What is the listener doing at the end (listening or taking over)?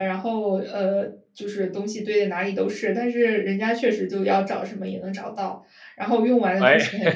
listening